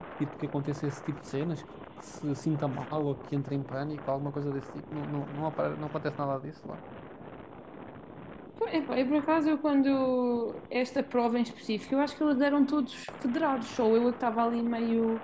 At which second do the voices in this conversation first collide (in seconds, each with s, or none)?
none